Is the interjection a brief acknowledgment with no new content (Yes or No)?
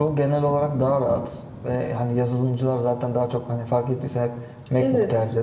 Yes